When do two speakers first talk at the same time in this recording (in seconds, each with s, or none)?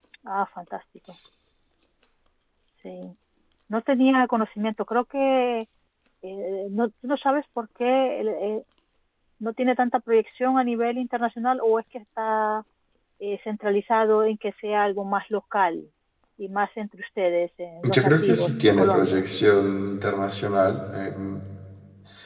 17.8 s